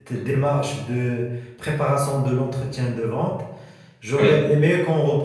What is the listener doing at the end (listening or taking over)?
listening